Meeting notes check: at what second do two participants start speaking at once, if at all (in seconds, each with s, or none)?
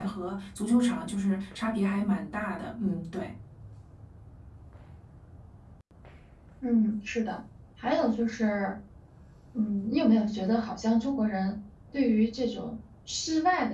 none